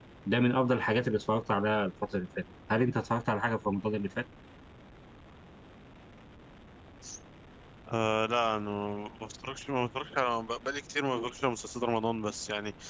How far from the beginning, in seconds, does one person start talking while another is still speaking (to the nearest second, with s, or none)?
none